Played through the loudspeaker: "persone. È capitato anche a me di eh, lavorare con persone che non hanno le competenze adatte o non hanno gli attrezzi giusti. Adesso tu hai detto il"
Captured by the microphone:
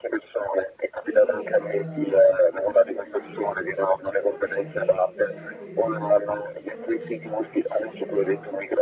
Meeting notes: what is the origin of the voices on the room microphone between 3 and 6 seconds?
both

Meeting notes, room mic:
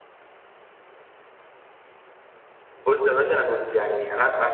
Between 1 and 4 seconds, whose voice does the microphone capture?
user only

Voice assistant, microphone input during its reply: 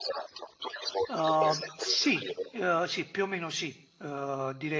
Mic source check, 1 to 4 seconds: both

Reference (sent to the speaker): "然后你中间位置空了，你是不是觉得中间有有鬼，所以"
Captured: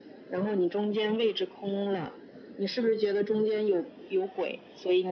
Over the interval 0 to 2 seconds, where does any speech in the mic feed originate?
echo only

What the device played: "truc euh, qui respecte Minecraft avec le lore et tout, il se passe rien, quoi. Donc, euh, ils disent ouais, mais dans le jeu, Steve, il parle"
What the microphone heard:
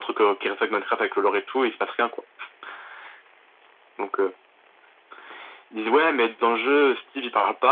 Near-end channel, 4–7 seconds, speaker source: echo only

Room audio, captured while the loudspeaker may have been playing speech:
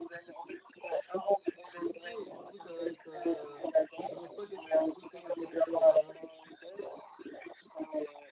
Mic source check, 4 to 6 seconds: both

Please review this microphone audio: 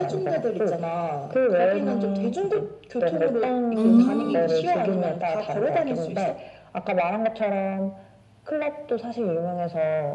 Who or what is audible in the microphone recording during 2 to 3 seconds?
echo only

